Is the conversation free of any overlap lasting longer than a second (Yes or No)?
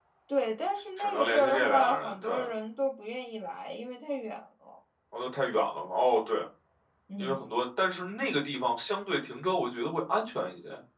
No